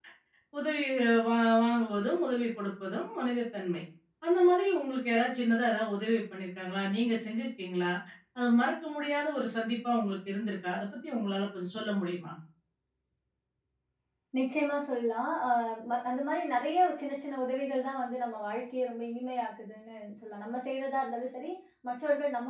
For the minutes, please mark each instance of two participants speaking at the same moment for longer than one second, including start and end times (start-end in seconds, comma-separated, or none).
none